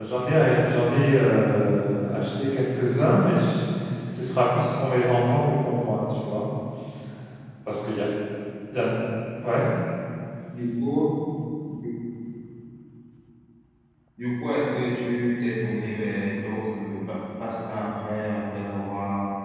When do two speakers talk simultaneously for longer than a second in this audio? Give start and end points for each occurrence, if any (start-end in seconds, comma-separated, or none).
none